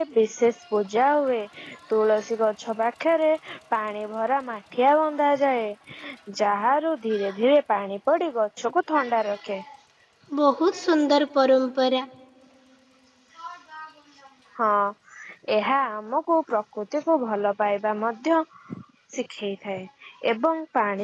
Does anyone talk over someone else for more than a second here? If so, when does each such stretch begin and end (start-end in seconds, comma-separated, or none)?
none